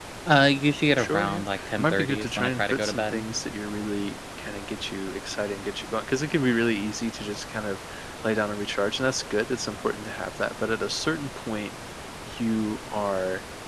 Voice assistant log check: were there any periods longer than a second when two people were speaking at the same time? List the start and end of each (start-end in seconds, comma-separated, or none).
1.0-3.2